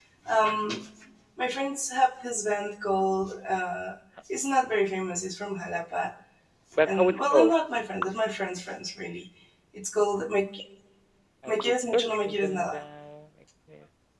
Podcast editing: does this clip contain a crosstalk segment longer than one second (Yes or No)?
Yes